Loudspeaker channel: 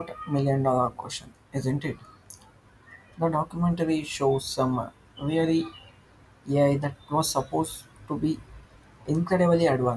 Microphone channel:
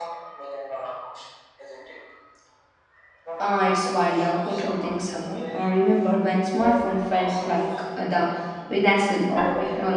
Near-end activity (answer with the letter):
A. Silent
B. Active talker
B